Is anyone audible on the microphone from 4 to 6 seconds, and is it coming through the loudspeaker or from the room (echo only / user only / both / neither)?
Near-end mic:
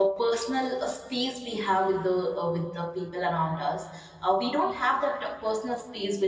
user only